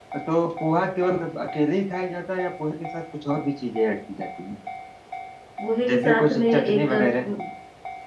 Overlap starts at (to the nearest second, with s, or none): 6 s